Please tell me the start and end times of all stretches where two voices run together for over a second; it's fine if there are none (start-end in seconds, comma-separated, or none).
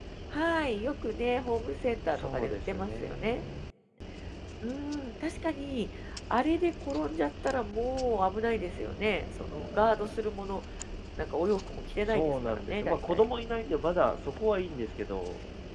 2.1-3.4, 12.0-13.2